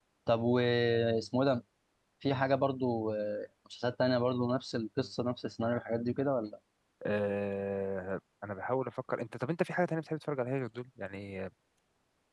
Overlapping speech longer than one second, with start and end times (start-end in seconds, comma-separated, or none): none